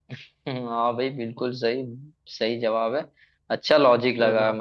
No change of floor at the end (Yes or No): Yes